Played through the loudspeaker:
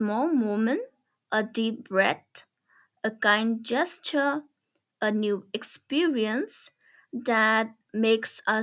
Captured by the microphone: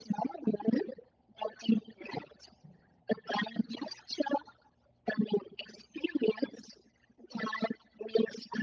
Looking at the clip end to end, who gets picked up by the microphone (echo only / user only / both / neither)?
echo only